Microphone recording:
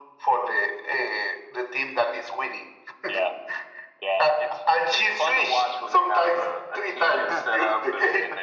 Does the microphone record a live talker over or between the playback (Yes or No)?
Yes